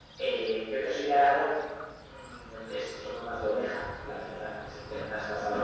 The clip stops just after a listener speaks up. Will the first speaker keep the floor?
Yes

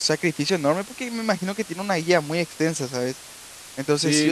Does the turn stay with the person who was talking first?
No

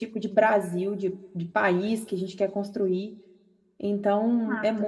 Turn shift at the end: No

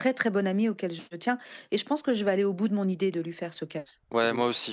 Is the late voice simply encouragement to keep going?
No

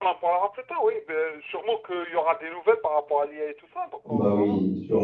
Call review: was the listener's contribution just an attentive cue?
No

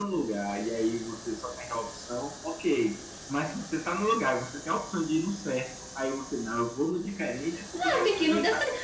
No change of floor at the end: No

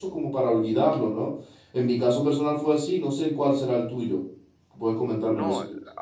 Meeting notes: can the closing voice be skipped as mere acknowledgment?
No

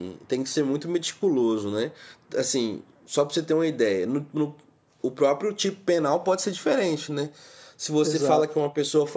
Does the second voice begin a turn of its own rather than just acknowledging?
No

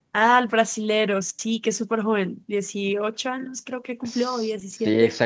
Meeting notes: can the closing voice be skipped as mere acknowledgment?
No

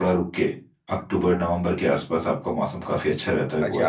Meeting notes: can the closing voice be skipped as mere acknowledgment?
No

